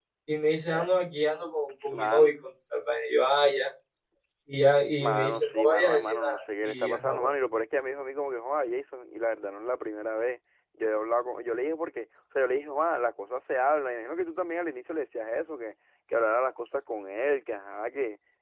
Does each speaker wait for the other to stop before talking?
No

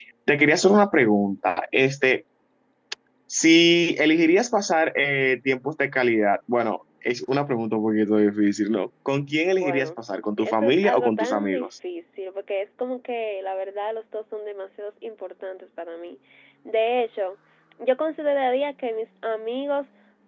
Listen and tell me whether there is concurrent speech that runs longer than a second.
Yes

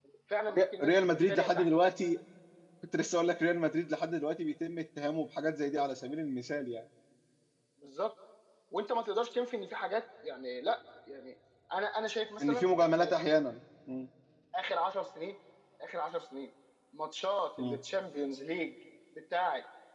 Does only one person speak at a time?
No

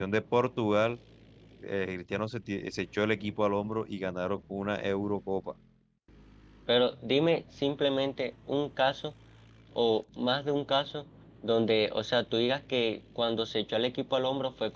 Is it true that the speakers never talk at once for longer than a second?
Yes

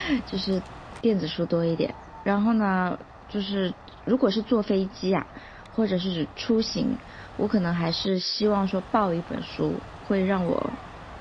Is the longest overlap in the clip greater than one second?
No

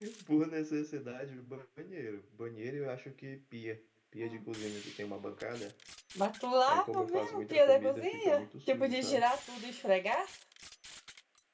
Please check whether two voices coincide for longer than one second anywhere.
Yes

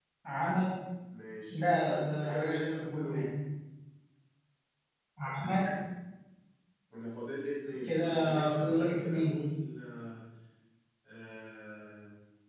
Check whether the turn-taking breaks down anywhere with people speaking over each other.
Yes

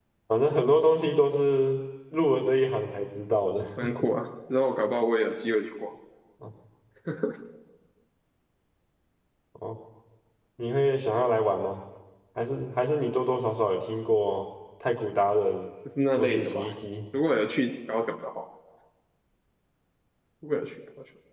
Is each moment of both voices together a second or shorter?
Yes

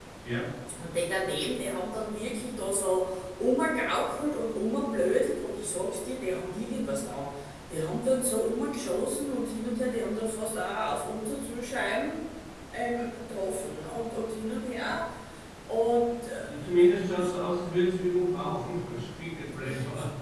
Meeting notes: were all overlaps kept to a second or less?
Yes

